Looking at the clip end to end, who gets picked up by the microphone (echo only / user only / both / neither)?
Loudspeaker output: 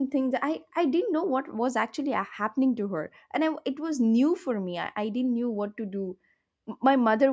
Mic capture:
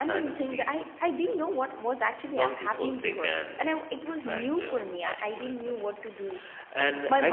both